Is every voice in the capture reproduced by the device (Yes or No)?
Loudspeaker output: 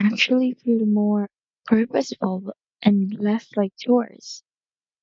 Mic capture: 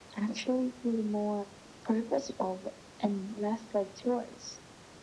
Yes